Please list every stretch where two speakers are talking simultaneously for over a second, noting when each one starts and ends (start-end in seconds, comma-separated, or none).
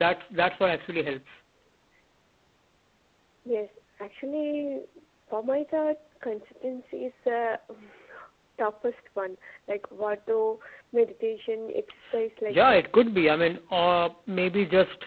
none